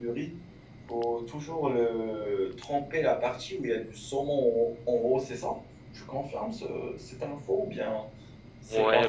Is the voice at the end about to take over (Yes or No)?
Yes